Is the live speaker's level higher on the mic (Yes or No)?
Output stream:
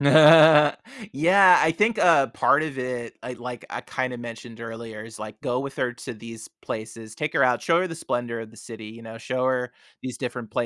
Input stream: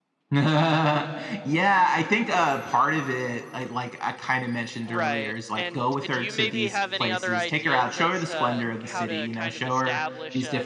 No